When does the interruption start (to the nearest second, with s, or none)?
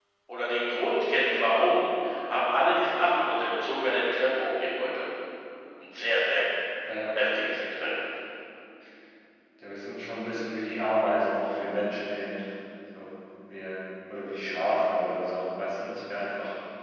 none